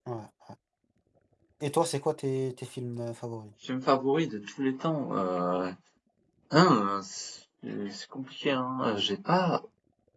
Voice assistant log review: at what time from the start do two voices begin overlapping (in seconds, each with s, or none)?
none